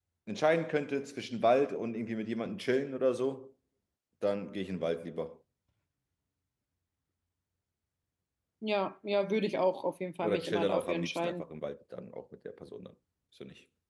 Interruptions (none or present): present